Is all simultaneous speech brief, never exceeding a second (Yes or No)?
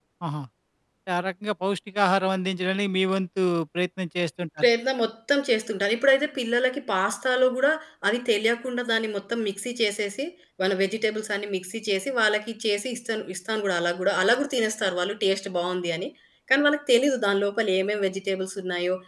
Yes